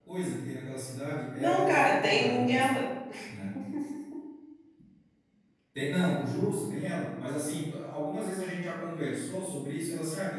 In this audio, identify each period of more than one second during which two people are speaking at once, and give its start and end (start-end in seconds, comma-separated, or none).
1.4-2.7